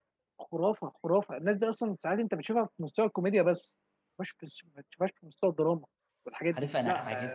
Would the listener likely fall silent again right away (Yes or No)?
No